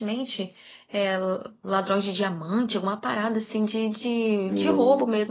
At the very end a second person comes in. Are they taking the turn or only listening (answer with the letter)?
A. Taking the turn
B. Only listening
B